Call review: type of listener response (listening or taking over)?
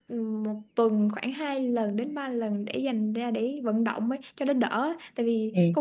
listening